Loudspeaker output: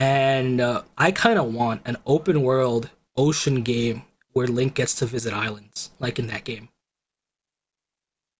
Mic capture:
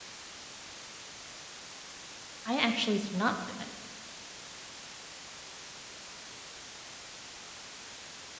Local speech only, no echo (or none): I actually did not play that game.